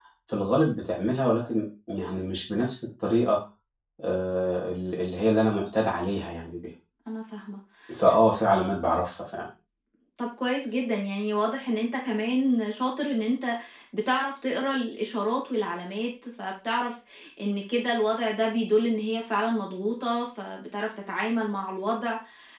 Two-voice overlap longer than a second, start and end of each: none

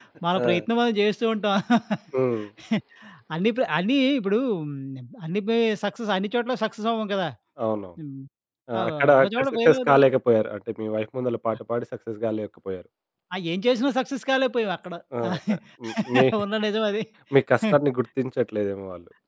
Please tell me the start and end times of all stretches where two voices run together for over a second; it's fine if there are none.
8.8-10.0

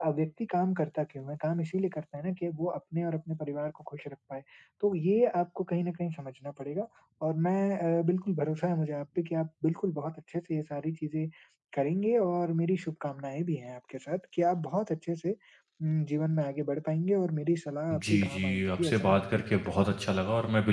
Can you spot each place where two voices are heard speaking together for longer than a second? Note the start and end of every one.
17.9-20.0

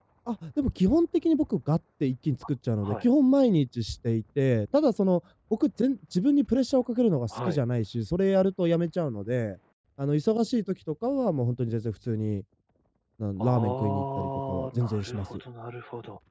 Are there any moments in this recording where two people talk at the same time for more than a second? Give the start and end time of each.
13.4-15.3

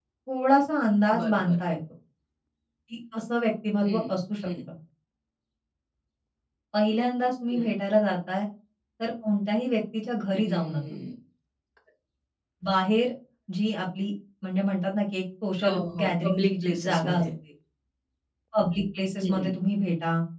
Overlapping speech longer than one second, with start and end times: 15.6-17.2

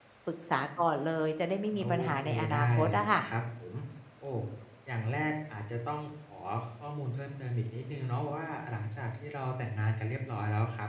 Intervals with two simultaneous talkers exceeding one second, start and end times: 1.8-3.2

